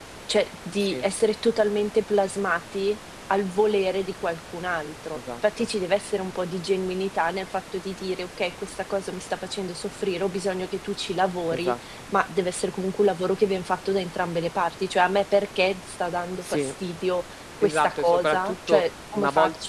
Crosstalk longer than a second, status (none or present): present